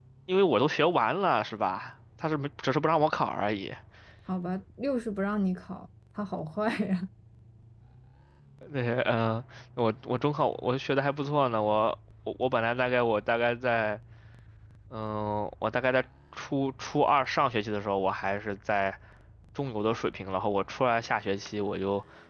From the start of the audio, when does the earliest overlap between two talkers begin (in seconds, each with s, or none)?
none